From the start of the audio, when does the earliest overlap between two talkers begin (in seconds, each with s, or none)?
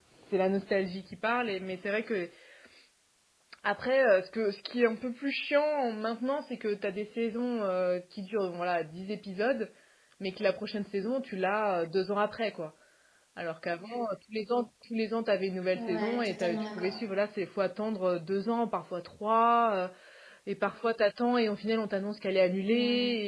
15.8 s